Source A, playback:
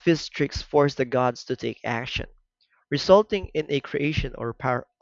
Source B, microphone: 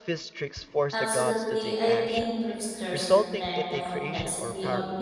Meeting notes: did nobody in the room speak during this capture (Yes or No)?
No